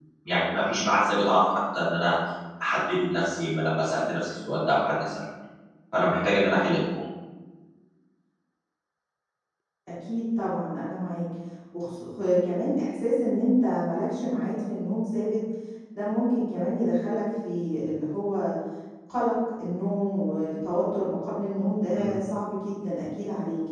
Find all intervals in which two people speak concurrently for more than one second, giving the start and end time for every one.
none

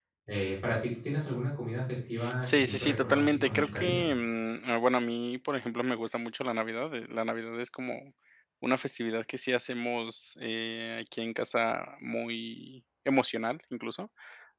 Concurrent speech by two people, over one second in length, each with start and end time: 2.4-4.1

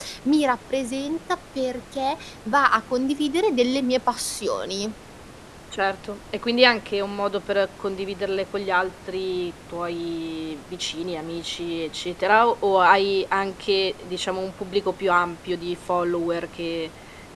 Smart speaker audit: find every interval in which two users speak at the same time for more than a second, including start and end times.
none

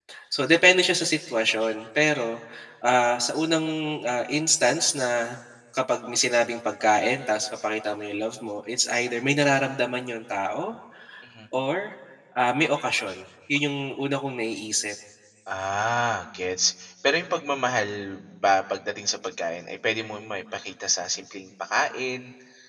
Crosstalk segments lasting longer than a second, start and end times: none

